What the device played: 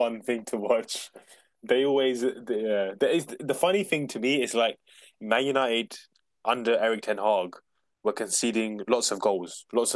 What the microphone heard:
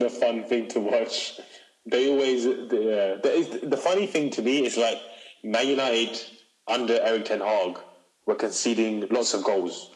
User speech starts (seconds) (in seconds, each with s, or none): none